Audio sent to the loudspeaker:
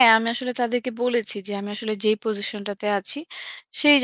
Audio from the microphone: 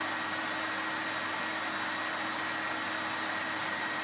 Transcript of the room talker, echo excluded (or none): none